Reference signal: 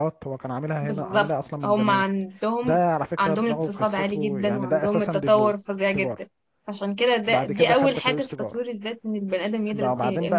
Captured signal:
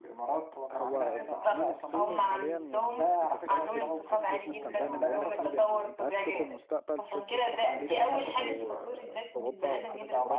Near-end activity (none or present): present